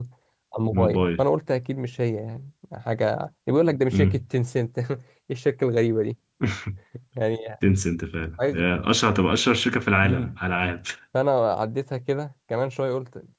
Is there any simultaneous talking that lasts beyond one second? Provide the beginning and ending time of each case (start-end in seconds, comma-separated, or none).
none